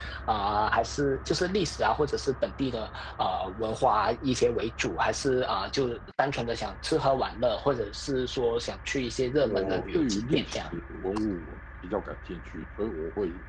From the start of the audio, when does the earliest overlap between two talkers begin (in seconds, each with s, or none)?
9.4 s